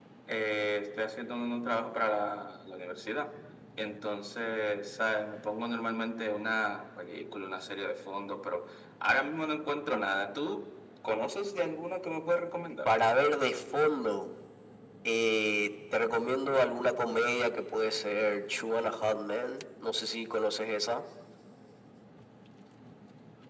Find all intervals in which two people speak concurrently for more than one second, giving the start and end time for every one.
none

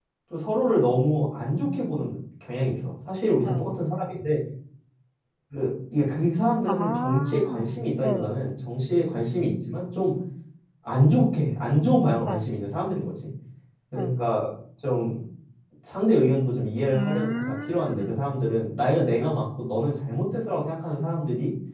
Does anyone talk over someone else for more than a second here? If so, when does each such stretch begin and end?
6.7-8.4, 16.9-18.2

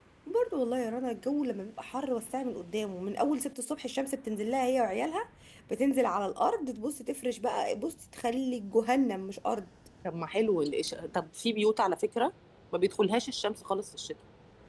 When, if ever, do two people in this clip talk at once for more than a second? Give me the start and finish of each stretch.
none

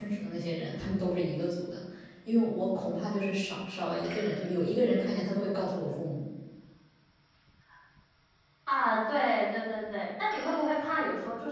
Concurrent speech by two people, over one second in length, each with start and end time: none

